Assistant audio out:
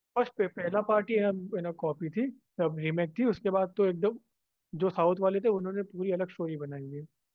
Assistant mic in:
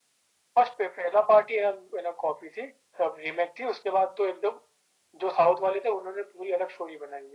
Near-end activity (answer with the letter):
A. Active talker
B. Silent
B